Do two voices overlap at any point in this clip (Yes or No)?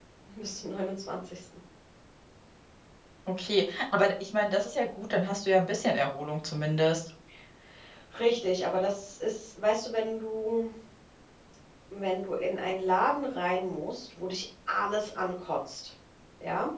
No